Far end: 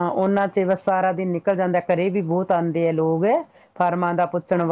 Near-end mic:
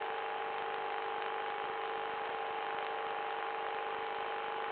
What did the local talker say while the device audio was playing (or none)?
none